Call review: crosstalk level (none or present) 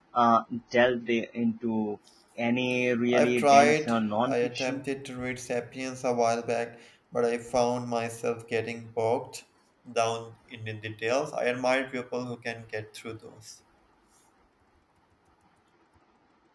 present